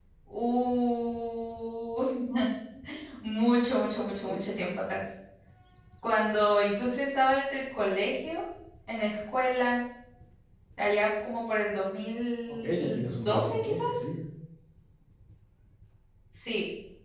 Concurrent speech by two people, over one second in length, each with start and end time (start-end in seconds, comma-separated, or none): 12.6-14.0